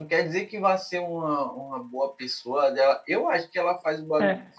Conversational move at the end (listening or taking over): listening